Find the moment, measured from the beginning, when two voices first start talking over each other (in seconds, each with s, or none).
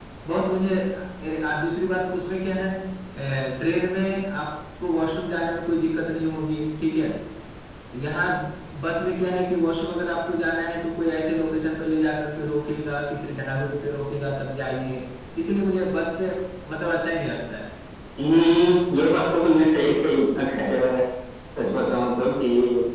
none